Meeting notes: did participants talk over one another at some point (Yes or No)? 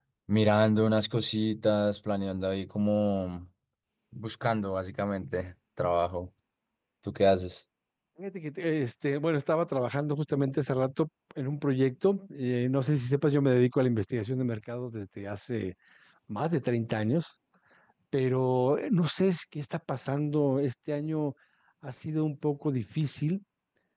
No